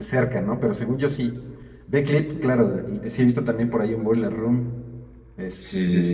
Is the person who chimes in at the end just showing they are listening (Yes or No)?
No